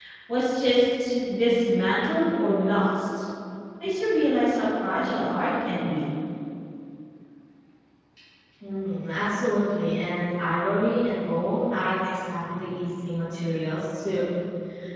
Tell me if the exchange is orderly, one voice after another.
Yes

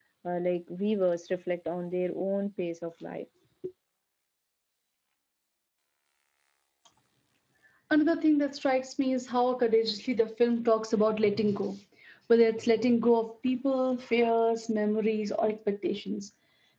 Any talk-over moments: No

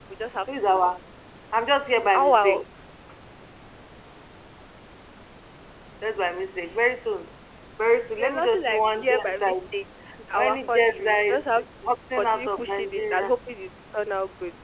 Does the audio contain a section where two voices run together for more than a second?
Yes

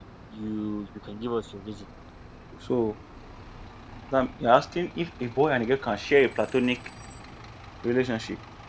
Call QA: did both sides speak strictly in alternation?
Yes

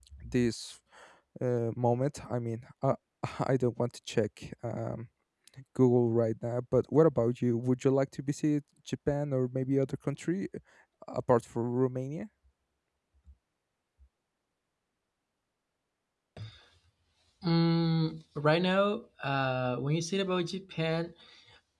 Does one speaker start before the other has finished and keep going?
No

